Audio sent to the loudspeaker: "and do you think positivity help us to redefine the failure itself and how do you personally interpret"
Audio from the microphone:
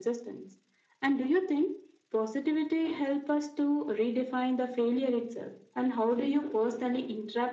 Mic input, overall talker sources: echo only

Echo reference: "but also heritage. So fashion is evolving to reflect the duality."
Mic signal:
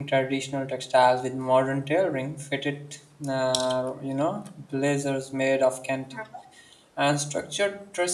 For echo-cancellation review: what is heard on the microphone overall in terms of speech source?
user only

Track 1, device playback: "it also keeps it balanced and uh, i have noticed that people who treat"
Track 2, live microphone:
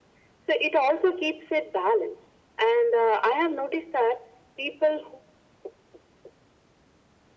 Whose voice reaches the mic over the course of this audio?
echo only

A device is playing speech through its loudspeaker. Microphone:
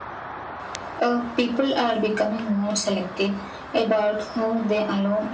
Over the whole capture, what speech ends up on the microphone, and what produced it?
echo only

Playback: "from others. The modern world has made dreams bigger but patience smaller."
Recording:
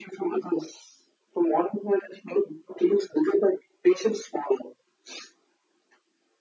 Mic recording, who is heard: echo only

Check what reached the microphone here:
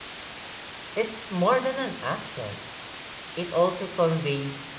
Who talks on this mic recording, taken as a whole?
user only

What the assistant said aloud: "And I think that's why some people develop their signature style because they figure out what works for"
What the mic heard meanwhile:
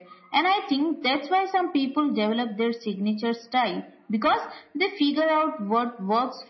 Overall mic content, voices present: echo only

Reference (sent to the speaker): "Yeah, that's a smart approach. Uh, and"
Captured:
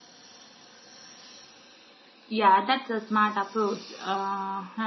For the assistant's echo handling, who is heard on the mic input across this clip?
echo only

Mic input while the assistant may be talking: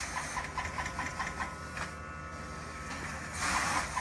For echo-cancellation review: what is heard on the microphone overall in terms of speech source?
neither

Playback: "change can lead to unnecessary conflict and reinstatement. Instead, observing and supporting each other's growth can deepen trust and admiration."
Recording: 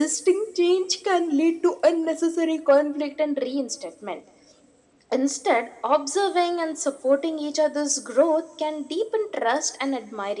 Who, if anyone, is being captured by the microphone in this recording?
echo only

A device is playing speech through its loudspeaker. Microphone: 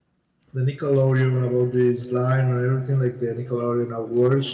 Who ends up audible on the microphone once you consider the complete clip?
user only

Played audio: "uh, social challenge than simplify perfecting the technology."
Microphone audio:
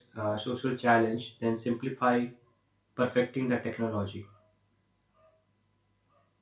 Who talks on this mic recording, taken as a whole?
echo only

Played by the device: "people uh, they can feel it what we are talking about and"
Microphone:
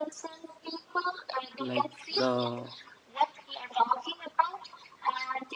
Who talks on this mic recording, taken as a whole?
both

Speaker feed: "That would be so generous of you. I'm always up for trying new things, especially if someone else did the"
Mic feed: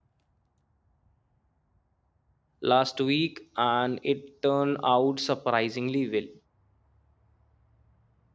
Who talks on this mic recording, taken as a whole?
user only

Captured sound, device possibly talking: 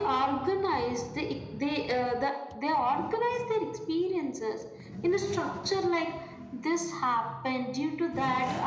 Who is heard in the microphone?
echo only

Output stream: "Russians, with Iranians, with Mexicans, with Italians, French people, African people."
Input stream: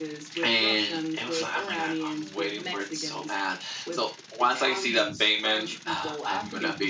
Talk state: both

